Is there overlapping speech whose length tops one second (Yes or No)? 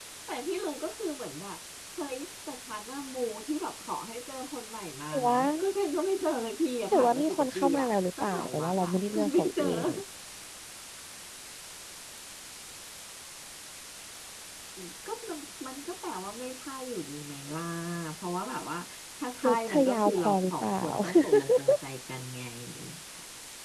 Yes